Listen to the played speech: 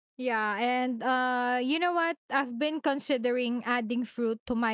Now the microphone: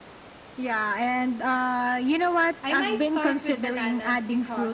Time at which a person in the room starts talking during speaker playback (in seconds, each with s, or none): 2.6 s